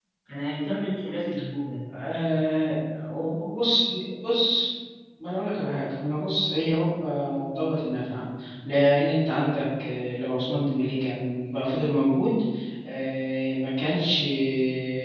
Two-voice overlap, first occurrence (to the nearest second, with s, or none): none